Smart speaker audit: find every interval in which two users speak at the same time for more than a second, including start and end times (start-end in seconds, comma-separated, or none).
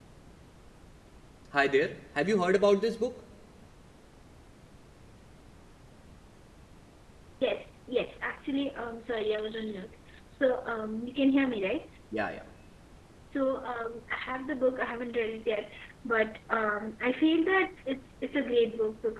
none